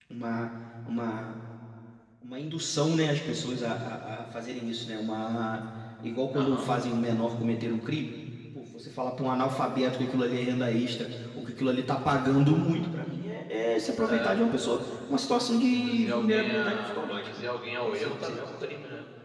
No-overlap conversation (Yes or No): No